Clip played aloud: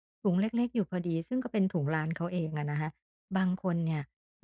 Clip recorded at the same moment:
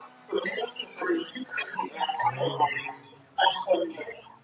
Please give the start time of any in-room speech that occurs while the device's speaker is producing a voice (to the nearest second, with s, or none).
2 s